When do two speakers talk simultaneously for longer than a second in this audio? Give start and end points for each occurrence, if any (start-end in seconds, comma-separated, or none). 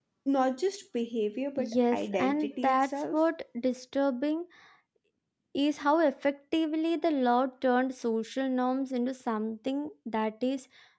1.6-3.2